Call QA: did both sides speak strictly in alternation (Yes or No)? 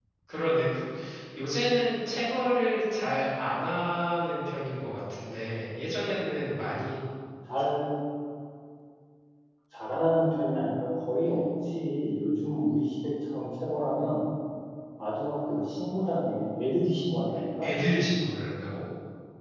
Yes